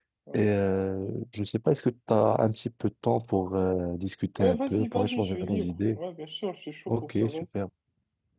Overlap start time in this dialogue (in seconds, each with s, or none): 4.4 s